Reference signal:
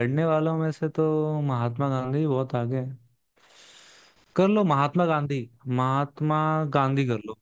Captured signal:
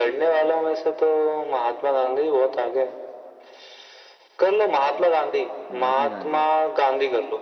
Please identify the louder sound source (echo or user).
echo